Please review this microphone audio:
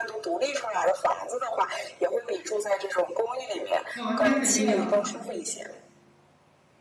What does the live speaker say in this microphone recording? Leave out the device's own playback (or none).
哦，那肯定要。